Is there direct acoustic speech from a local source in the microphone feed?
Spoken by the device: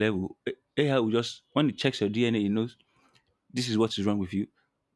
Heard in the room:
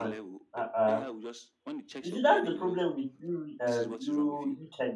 Yes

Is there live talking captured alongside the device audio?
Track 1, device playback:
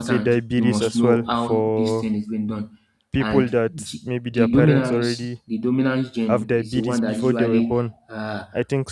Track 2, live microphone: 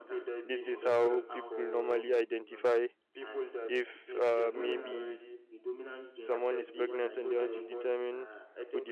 Yes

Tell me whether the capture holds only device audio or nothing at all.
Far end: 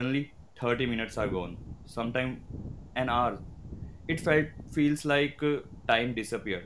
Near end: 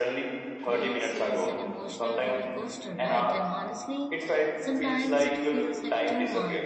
No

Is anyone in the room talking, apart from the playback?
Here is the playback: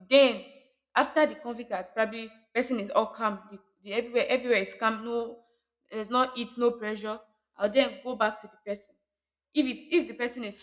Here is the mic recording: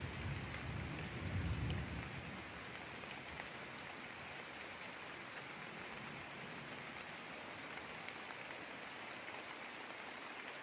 No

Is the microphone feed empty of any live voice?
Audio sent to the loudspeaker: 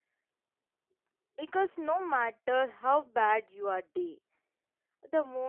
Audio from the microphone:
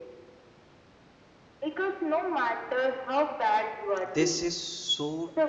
No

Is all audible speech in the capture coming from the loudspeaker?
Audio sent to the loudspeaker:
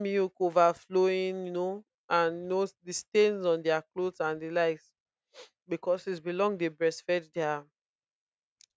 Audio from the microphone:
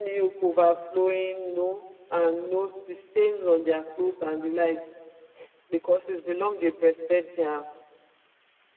Yes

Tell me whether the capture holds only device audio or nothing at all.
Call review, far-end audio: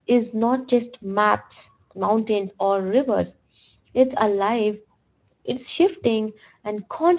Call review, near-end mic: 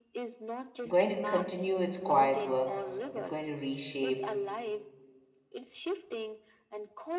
No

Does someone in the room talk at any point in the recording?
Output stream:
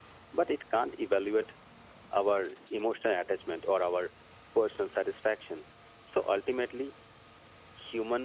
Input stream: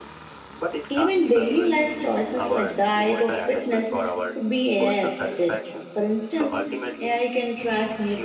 Yes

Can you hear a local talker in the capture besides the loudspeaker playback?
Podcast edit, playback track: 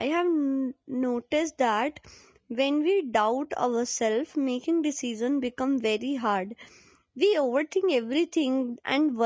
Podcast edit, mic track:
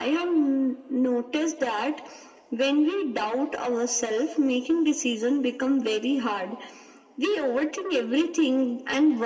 No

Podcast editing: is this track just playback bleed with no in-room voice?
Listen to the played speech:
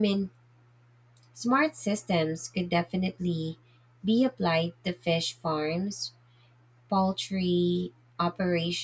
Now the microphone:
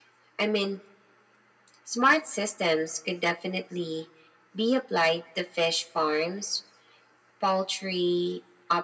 Yes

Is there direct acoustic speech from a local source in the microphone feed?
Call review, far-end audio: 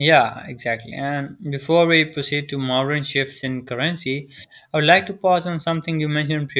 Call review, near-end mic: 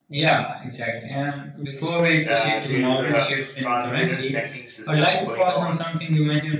Yes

